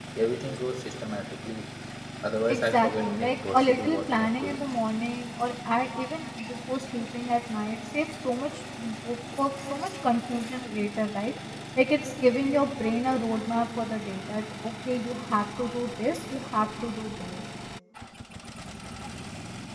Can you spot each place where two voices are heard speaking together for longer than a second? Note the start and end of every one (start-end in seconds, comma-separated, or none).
2.5-4.6